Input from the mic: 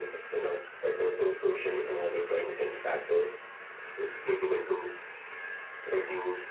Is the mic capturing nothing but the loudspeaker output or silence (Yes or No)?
Yes